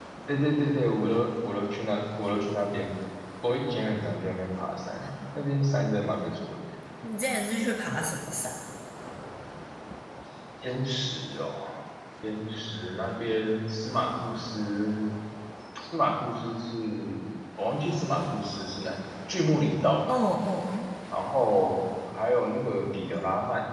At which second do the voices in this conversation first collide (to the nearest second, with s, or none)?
none